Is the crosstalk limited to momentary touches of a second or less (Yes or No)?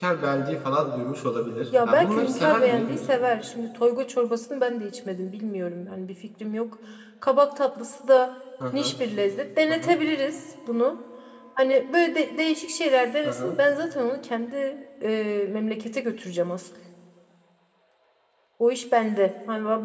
No